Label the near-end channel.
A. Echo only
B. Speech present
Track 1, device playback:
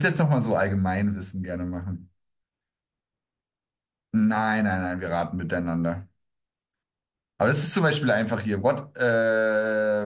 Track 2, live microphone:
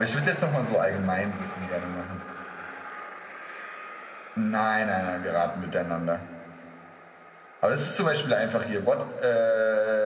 A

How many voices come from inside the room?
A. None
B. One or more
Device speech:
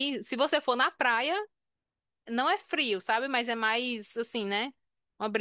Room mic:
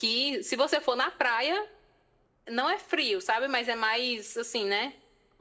A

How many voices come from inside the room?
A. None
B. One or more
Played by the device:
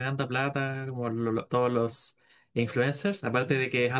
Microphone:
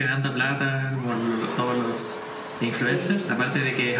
B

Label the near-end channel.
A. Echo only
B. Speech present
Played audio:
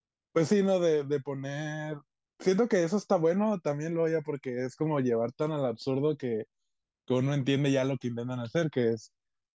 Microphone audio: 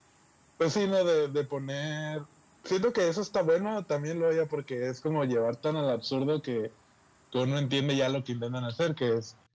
A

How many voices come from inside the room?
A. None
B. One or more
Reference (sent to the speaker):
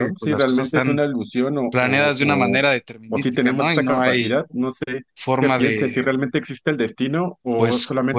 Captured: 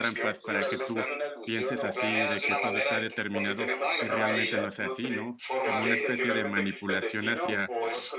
B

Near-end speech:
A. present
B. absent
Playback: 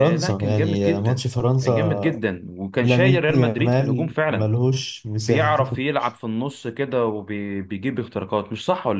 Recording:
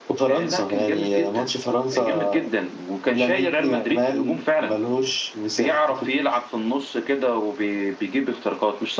B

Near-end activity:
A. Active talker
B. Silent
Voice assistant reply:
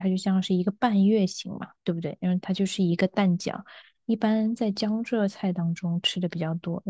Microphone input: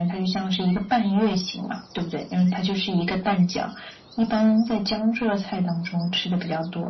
B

